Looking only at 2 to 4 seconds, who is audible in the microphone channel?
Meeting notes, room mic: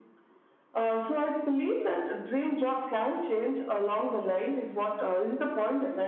echo only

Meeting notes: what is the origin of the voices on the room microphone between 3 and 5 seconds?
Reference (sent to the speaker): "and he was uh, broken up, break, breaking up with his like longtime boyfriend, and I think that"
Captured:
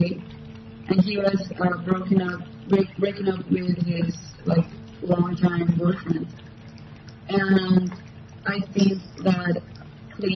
echo only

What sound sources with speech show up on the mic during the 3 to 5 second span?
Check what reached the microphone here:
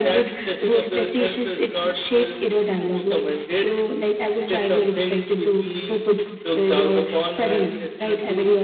echo only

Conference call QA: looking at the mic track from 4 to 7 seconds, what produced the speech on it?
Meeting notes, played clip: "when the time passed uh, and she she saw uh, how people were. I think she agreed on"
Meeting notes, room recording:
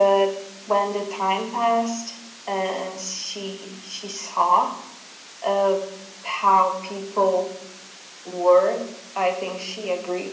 echo only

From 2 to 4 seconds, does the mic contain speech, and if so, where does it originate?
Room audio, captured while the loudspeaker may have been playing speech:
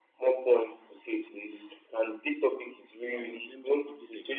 both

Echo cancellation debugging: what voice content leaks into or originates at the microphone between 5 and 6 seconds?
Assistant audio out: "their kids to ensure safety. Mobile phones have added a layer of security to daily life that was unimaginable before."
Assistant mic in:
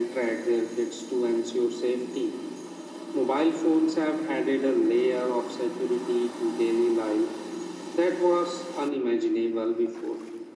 echo only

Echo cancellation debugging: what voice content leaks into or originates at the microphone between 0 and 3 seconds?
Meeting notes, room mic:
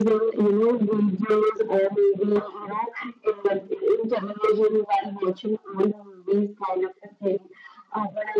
echo only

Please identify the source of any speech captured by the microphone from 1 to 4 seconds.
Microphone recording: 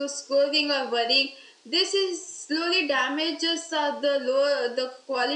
echo only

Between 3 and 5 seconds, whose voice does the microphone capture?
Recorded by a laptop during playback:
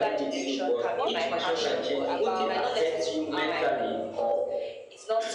both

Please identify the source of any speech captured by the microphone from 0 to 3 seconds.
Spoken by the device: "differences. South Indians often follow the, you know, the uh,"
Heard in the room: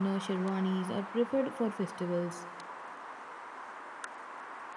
user only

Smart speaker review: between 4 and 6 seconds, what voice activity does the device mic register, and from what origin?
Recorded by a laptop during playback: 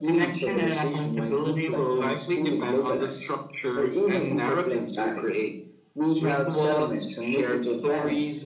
echo only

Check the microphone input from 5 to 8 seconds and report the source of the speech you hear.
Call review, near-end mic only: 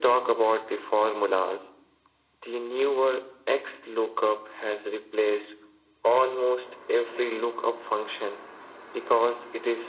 echo only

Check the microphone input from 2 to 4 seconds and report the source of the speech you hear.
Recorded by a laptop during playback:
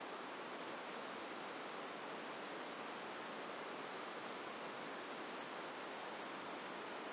neither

